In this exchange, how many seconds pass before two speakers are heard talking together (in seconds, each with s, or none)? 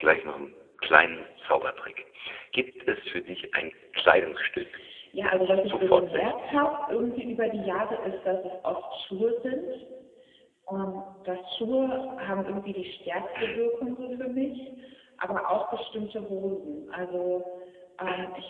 5.2 s